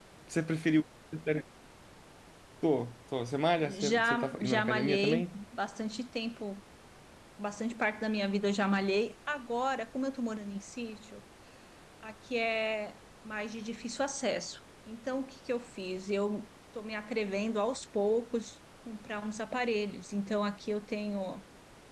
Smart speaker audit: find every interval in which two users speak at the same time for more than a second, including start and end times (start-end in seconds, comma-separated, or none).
3.8-5.4